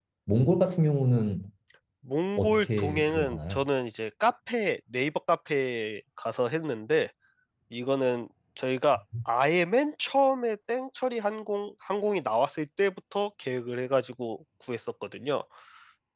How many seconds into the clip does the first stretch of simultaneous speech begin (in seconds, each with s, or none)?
2.4 s